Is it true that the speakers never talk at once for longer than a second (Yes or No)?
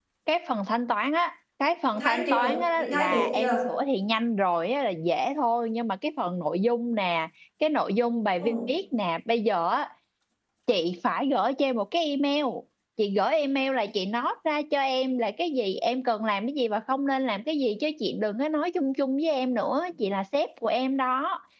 No